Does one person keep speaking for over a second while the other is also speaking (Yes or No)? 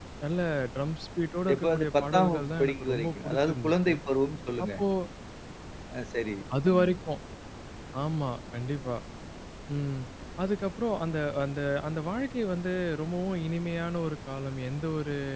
Yes